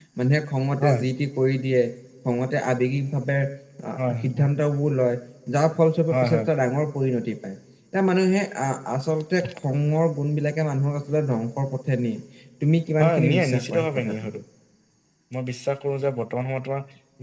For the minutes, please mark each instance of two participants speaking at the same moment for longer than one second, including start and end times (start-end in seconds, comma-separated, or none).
13.0-14.3